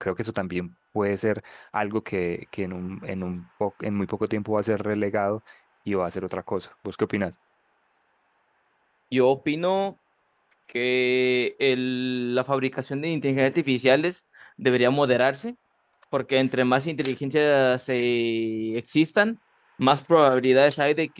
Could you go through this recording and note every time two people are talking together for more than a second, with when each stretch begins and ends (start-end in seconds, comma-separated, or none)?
none